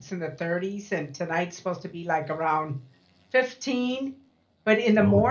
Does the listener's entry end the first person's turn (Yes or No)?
No